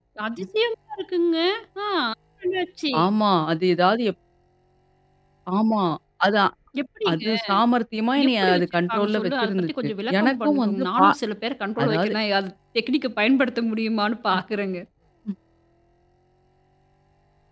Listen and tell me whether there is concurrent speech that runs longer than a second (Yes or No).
Yes